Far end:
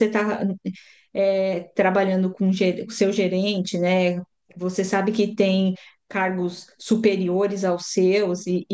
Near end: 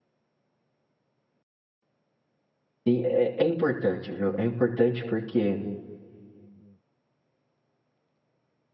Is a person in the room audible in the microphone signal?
Yes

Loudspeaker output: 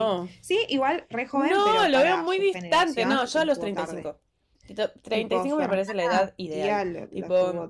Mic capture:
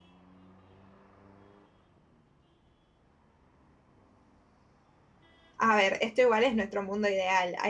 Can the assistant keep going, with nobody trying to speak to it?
No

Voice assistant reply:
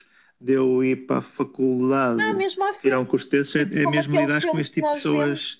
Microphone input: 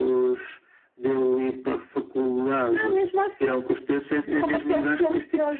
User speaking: No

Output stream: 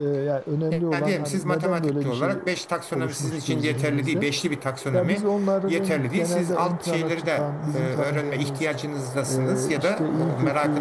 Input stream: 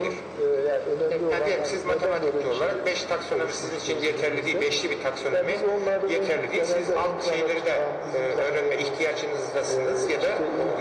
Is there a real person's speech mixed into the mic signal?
No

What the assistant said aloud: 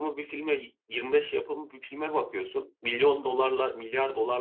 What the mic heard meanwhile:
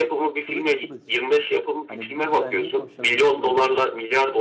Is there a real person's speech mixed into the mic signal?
Yes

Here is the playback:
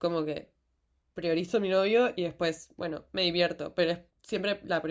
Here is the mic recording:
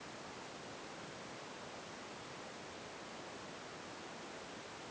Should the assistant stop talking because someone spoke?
No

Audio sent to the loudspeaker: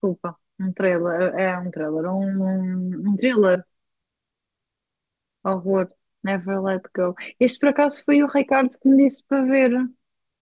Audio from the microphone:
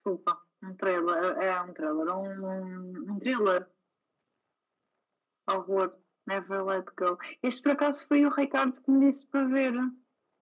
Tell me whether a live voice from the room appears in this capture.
No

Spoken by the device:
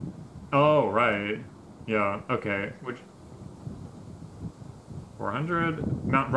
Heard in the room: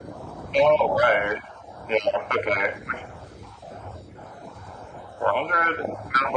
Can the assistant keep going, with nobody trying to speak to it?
Yes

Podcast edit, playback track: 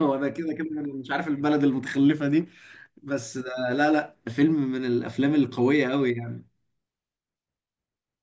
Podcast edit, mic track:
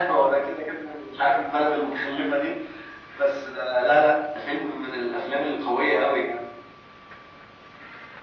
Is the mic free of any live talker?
Yes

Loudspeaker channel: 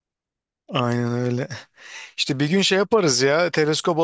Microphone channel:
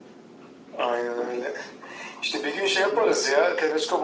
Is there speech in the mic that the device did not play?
No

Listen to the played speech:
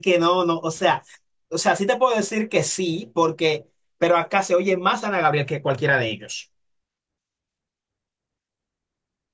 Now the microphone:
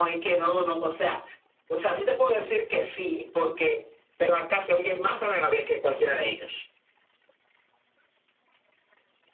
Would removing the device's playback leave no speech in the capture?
Yes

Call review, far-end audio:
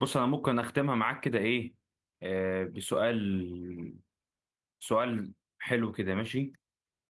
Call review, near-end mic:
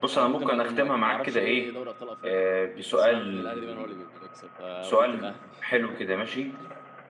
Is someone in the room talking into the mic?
Yes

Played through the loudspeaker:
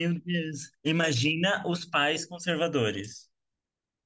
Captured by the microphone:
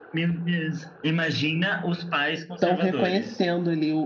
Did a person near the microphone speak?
Yes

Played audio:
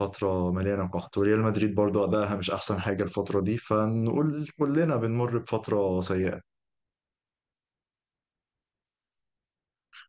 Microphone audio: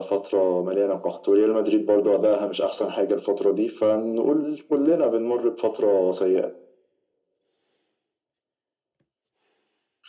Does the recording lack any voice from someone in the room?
Yes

